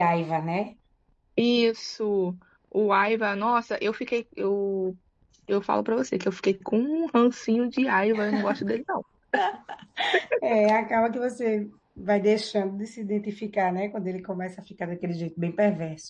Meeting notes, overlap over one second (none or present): none